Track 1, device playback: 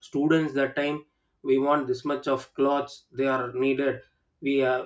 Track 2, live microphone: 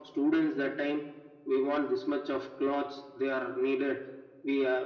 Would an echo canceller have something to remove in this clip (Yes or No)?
Yes